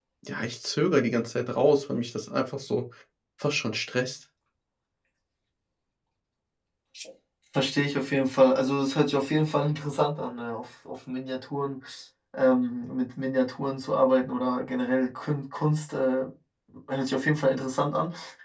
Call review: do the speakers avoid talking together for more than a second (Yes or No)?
Yes